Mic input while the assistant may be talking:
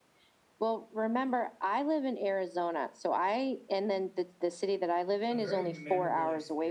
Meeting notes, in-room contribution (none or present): present